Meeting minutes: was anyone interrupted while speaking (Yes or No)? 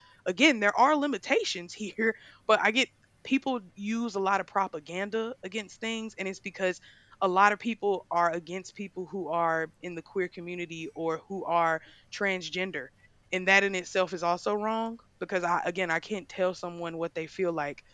No